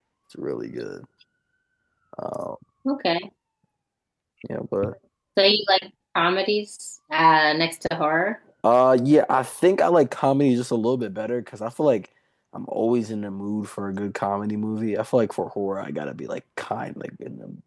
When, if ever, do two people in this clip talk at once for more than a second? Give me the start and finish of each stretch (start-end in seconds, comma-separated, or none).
none